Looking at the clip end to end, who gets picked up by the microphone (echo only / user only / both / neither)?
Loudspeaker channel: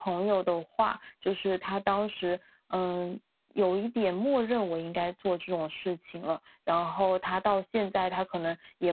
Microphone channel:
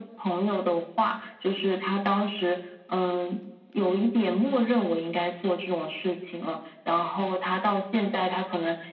echo only